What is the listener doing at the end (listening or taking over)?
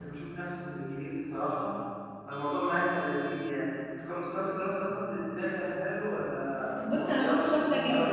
taking over